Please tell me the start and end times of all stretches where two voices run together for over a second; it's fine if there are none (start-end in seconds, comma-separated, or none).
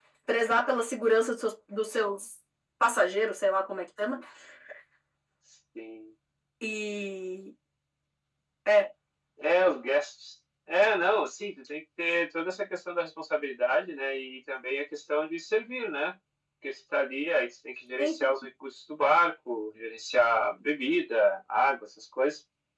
none